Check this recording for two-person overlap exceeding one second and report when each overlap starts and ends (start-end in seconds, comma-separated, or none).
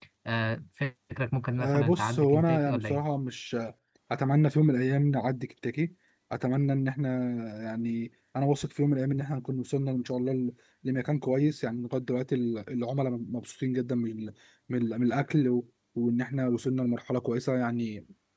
1.6-3.0